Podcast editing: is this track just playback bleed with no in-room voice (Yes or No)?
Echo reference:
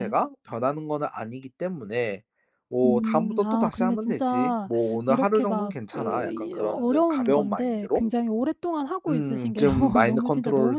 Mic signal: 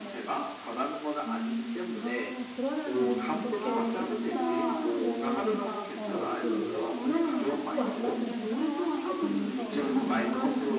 No